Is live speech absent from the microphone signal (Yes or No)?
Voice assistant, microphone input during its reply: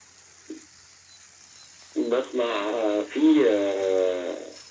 Yes